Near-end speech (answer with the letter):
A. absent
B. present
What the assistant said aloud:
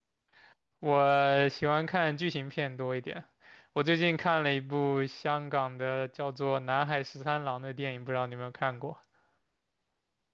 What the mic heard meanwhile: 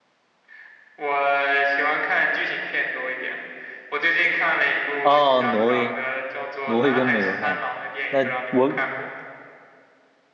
B